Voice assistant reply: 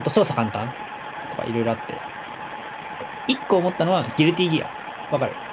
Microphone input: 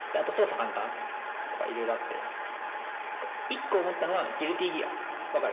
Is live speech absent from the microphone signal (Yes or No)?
Yes